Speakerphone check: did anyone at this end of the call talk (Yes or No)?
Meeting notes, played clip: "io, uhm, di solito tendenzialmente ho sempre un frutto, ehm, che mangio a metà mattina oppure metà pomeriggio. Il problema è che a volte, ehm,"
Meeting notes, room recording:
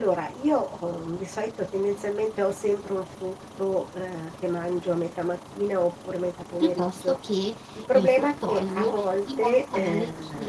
Yes